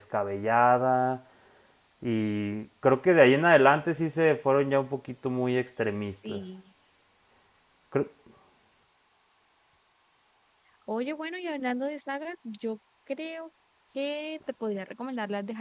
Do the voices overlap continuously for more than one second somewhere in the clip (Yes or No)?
No